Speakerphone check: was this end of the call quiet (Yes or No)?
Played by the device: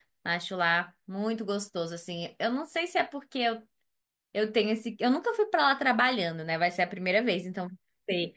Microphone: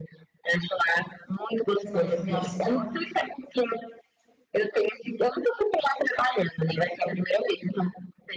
No